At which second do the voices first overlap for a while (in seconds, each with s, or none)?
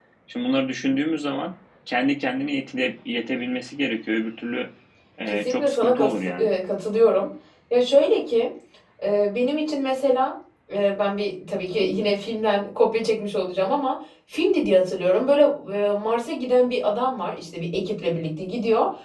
5.3 s